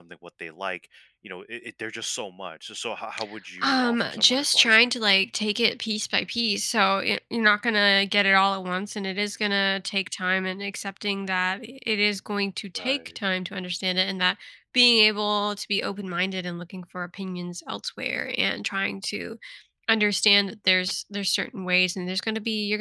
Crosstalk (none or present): present